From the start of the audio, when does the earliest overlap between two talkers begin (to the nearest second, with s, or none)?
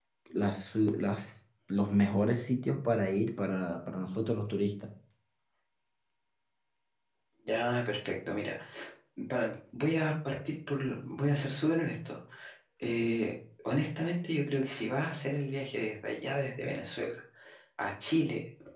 none